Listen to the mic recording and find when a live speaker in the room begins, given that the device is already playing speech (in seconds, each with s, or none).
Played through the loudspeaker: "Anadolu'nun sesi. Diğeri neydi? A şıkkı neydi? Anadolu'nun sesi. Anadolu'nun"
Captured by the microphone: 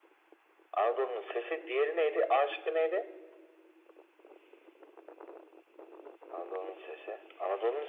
none